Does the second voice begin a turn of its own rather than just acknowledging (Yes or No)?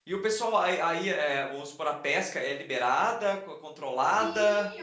Yes